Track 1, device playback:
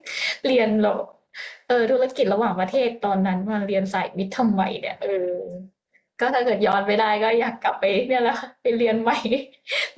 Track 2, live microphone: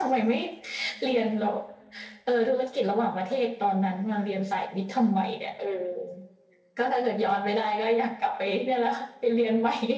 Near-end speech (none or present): none